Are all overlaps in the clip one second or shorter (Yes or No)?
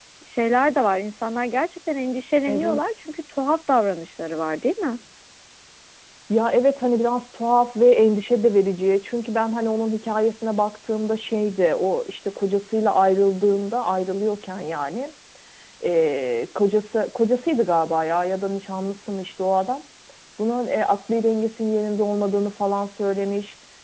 Yes